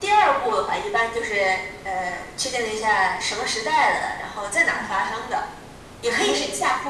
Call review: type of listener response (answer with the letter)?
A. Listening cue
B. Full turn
A